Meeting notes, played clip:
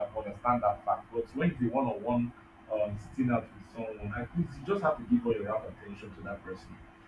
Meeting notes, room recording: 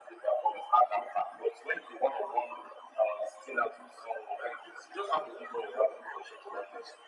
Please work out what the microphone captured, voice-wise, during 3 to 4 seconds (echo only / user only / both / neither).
echo only